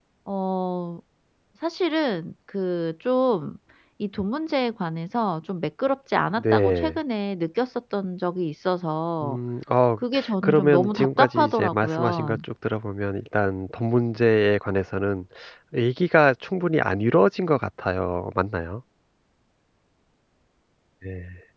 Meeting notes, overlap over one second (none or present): present